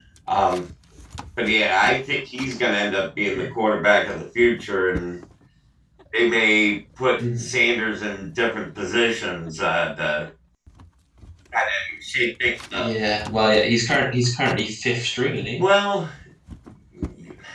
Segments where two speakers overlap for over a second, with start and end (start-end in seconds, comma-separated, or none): none